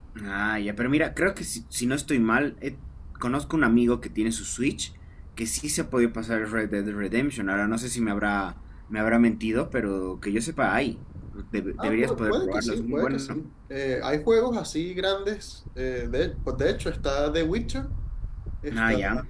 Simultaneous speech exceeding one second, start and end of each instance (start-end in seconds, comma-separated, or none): 11.8-13.4